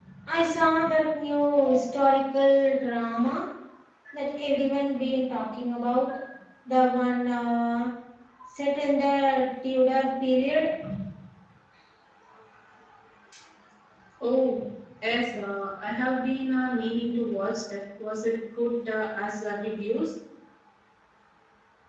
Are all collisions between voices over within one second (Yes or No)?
Yes